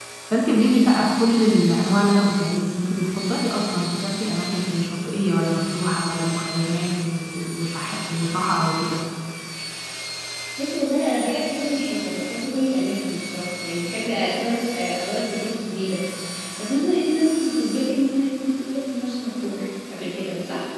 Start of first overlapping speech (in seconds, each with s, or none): none